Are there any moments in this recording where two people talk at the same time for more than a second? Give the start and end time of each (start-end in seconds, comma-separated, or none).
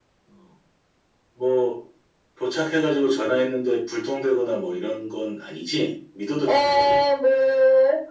none